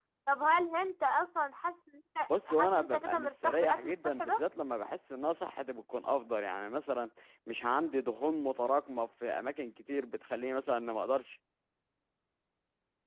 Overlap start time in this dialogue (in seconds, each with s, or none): 2.3 s